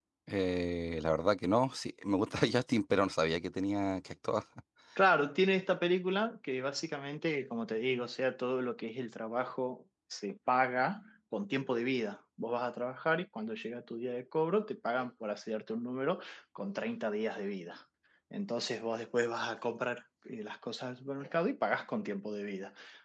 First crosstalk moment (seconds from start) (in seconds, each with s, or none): none